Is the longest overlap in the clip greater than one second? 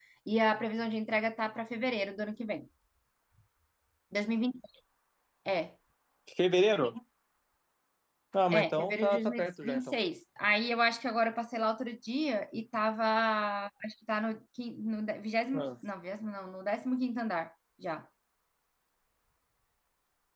Yes, from 8.5 s

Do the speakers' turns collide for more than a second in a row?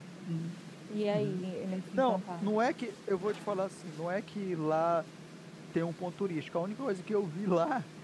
No

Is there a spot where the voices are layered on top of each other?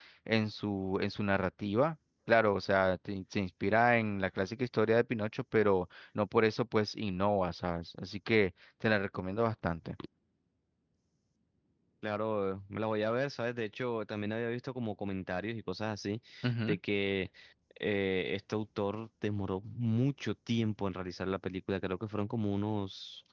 No

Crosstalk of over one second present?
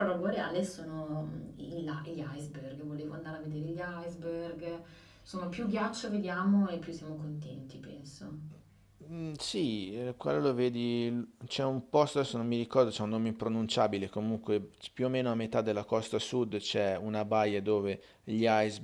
No

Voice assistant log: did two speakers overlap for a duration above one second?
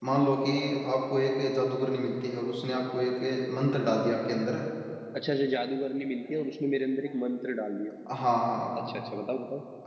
No

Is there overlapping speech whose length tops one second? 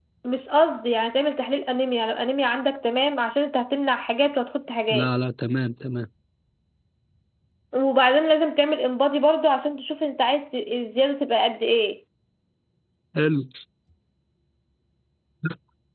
No

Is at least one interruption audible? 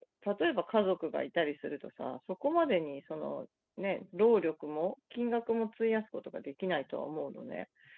No

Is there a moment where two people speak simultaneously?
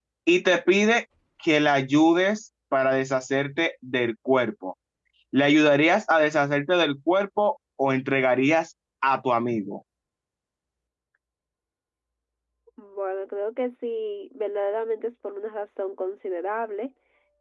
No

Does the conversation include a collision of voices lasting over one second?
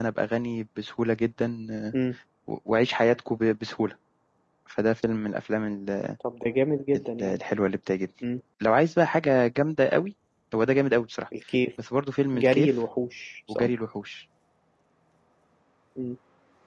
No

